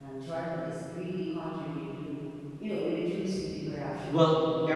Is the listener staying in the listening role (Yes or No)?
No